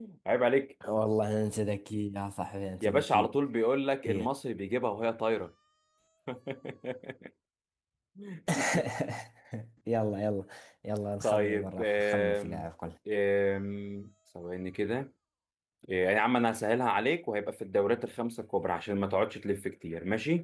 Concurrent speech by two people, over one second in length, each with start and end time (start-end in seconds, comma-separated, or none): 11.2-12.7